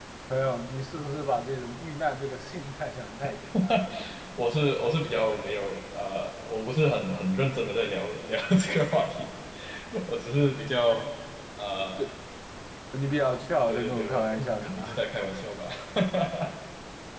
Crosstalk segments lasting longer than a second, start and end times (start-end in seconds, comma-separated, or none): 13.7-15.0